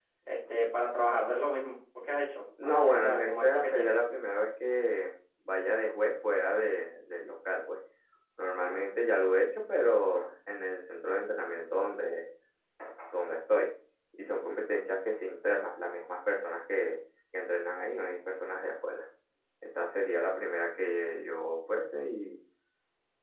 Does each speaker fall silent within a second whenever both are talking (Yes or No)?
No